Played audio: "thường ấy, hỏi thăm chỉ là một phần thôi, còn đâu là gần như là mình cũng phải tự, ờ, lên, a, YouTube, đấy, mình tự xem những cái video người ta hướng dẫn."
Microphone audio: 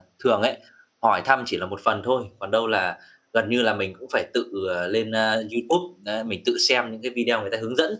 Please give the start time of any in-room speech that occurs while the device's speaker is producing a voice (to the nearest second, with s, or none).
none